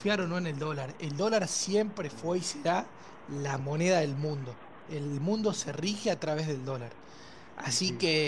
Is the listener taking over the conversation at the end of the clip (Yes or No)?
No